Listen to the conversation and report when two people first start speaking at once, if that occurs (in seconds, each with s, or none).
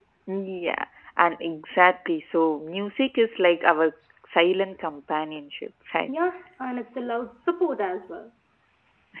none